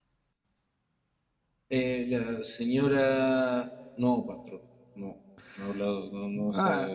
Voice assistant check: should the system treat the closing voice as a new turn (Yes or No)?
Yes